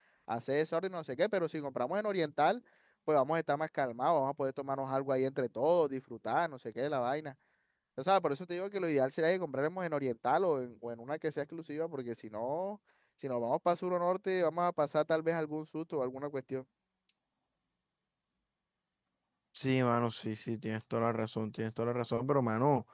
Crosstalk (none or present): none